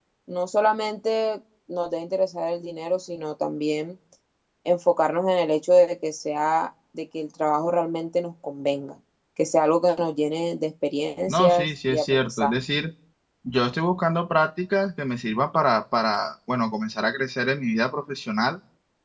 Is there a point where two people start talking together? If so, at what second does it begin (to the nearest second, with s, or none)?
11 s